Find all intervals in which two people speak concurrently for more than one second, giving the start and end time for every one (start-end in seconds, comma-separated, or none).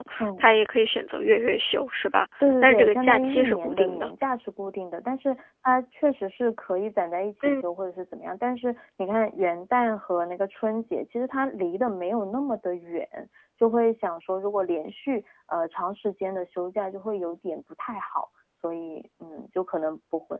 2.4-4.1